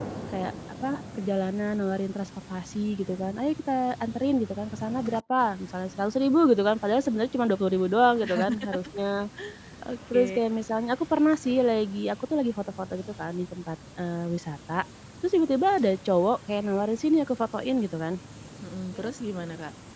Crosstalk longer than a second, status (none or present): none